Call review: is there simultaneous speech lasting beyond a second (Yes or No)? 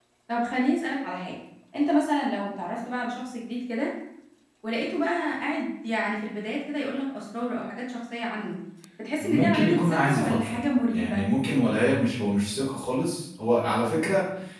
Yes